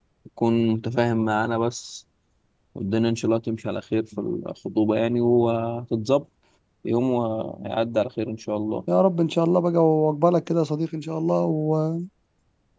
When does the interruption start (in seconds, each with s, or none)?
none